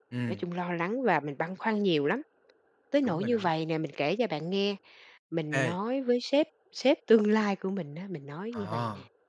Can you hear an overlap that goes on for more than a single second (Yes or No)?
No